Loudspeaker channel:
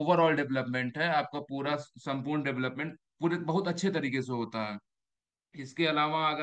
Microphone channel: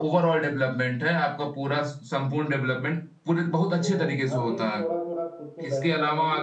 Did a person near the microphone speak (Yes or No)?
Yes